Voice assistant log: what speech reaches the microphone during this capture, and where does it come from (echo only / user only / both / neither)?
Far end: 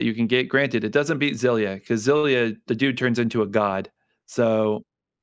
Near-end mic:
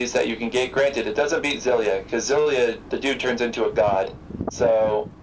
echo only